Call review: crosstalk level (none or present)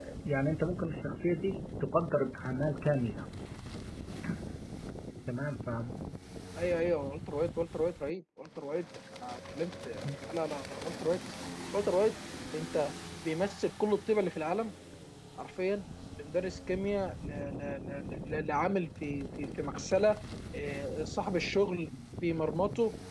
none